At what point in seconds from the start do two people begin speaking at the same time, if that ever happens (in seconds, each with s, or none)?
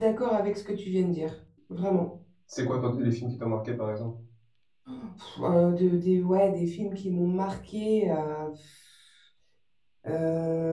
none